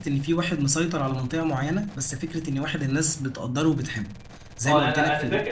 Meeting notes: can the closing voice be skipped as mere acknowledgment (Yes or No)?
No